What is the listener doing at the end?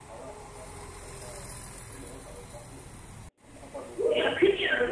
taking over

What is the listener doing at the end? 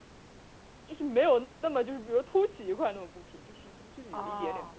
taking over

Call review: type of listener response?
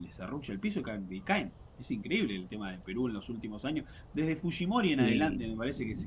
listening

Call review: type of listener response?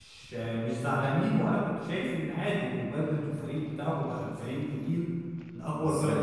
listening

